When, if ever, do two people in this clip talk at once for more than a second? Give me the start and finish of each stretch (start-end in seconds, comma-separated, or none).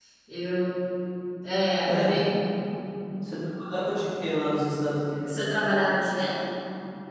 none